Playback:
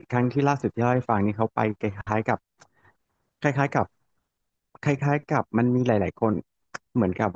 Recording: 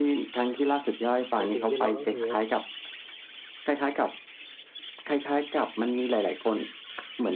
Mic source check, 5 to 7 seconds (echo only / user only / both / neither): echo only